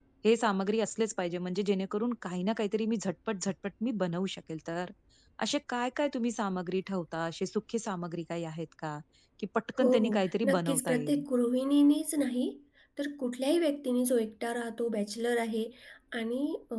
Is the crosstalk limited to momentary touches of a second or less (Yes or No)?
No